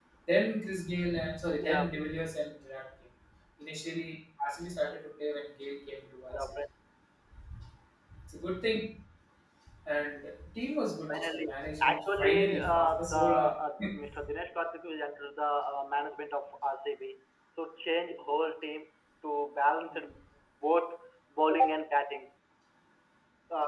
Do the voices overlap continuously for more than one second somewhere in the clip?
Yes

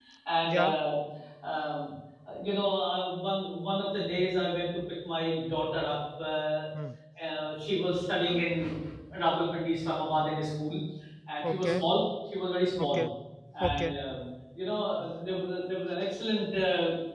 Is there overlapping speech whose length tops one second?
No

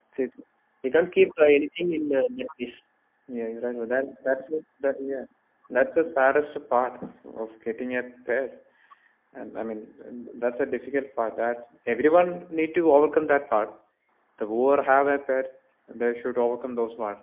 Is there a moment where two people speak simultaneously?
No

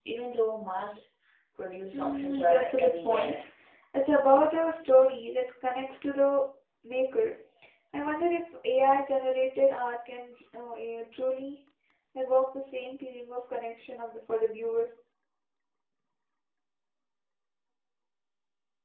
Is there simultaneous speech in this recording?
Yes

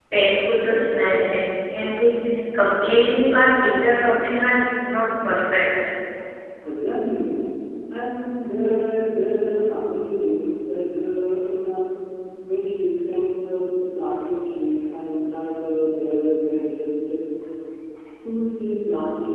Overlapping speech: No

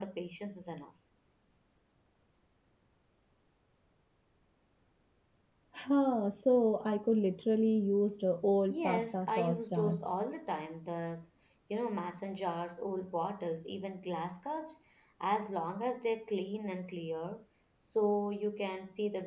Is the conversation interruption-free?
No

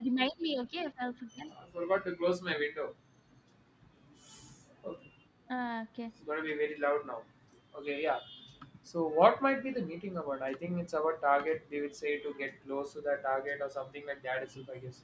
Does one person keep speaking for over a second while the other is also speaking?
No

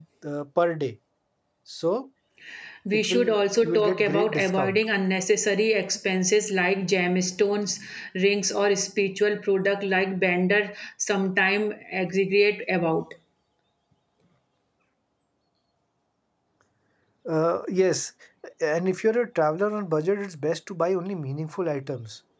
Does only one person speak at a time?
No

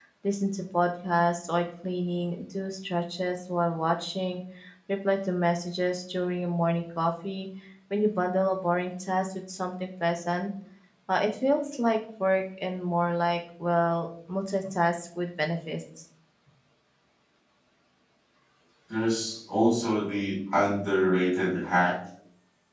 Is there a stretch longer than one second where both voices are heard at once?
No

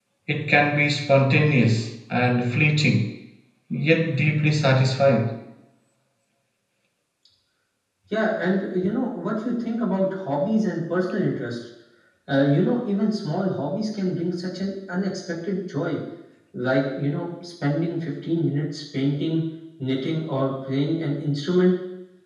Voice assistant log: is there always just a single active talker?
Yes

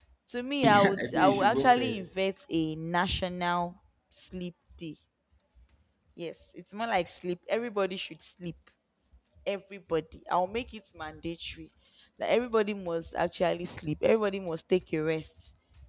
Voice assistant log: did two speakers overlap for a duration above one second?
Yes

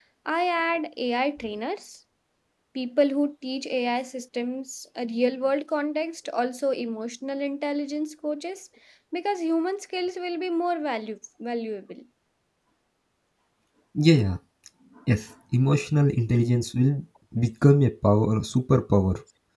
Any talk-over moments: No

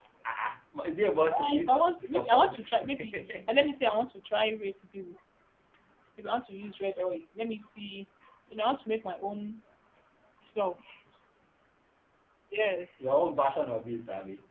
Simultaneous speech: Yes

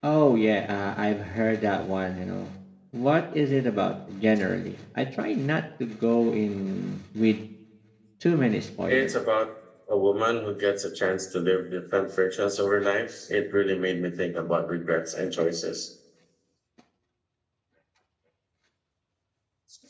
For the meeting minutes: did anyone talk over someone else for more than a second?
No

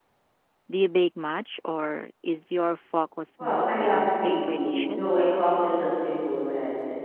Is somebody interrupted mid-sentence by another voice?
Yes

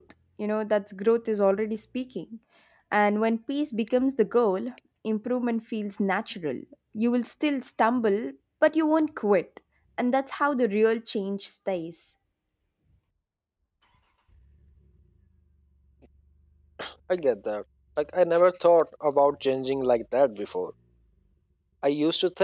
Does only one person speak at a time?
Yes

